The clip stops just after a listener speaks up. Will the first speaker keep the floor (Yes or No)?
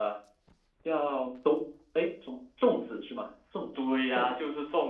No